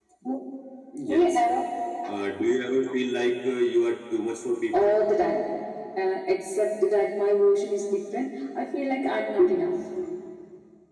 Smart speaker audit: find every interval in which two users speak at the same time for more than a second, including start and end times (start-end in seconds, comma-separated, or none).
none